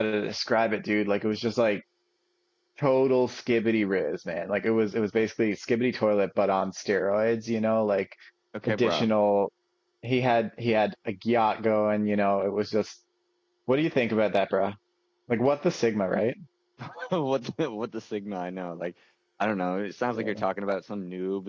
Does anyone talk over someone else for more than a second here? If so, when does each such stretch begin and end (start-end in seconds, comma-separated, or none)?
none